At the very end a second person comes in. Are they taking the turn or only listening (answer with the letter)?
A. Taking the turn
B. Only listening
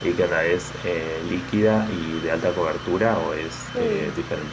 A